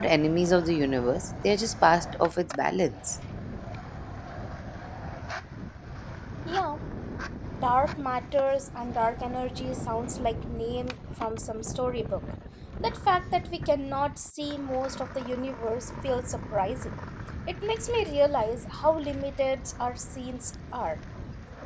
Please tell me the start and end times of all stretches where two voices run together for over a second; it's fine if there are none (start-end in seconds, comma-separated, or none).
none